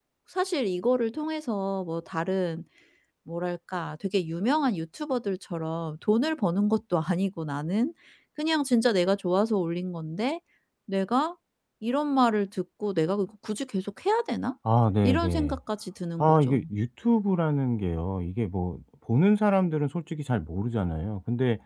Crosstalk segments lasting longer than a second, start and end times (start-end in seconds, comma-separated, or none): none